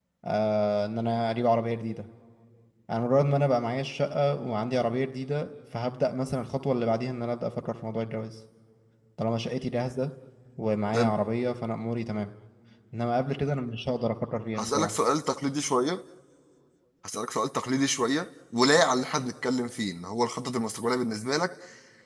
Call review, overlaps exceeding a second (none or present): none